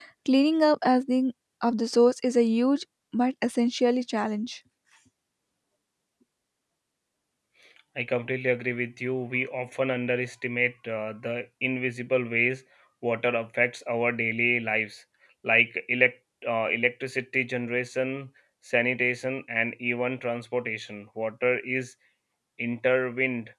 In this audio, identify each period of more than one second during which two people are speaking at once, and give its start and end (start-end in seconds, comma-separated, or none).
none